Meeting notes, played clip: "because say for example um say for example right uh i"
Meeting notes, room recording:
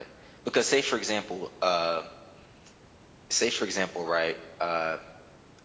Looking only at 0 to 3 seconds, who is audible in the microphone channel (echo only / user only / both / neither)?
echo only